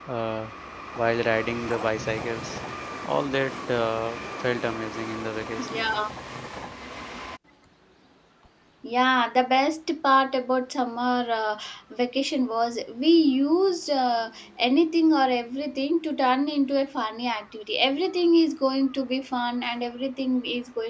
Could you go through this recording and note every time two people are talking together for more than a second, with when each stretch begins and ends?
none

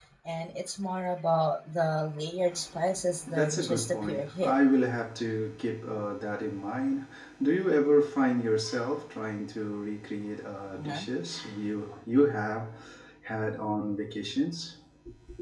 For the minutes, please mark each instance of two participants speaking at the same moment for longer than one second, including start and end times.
3.3-4.5

